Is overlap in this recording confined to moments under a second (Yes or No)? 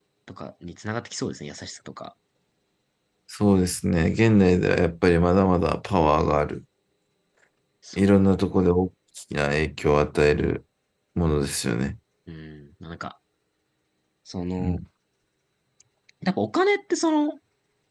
Yes